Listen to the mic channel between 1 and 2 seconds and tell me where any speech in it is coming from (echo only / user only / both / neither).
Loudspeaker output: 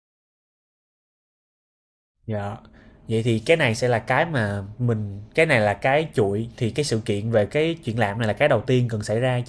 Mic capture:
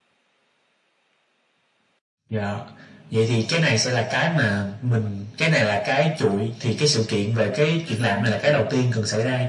neither